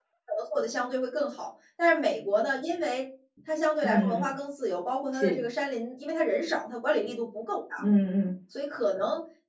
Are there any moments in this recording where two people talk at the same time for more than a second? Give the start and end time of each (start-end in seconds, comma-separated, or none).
none